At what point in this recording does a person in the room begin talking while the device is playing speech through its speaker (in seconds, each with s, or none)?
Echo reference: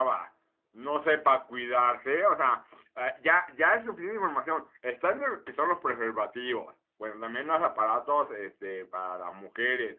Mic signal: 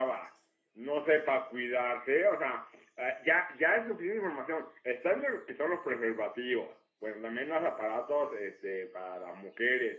none